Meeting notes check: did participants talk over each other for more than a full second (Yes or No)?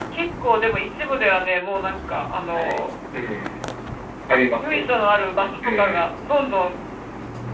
No